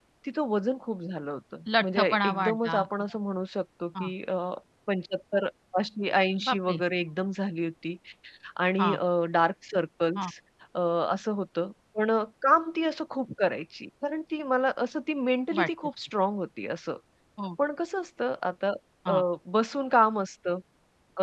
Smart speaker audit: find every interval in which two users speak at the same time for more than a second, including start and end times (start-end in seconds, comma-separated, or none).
1.8-3.2